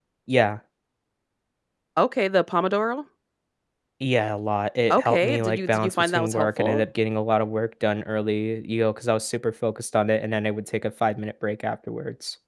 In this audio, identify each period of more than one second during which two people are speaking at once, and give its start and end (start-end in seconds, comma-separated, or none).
4.9-6.9